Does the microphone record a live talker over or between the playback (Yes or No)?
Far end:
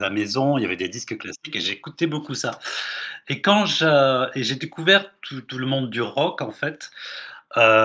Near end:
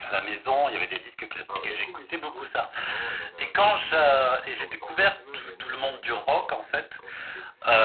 Yes